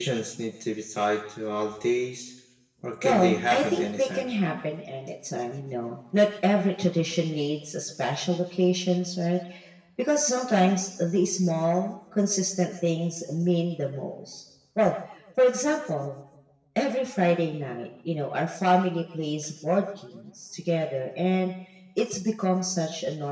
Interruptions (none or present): present